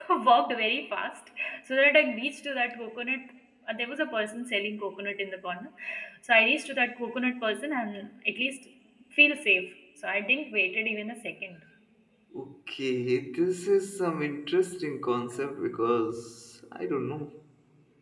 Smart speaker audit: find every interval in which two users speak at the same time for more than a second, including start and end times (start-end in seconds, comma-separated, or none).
none